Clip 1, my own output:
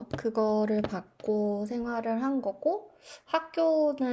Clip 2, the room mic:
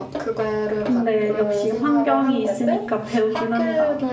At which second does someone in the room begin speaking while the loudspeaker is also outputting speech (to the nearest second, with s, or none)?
1 s